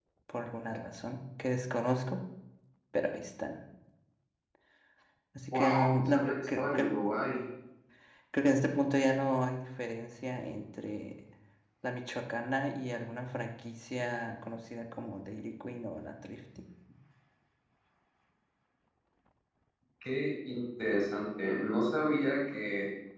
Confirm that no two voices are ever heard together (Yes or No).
No